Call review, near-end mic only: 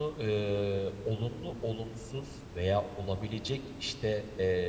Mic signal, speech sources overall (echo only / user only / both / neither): user only